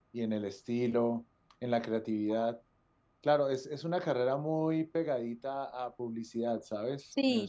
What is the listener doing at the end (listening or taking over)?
taking over